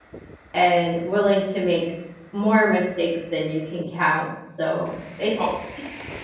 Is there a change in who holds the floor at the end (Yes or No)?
No